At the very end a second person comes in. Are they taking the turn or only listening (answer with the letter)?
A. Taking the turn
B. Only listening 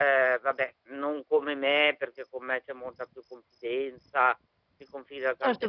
A